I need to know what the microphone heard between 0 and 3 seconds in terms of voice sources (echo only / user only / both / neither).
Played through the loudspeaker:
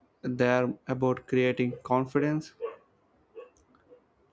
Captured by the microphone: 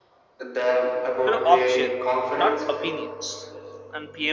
both